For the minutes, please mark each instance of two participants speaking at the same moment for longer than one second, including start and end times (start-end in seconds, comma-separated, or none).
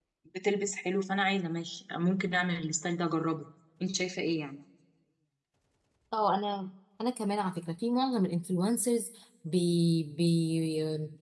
none